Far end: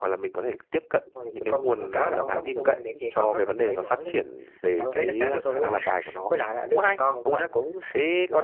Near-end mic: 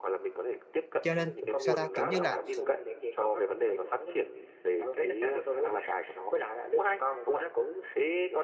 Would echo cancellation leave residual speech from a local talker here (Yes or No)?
Yes